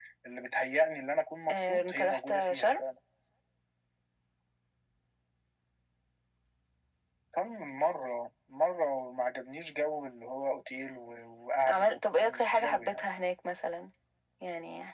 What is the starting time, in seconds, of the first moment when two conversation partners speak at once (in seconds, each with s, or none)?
1.5 s